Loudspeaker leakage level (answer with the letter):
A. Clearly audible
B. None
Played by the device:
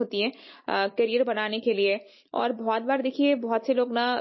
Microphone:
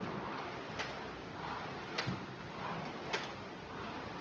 B